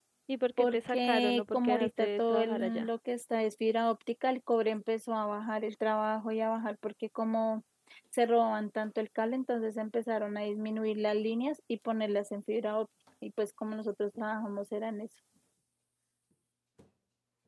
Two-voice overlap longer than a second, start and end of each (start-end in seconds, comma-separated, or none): 0.6-2.9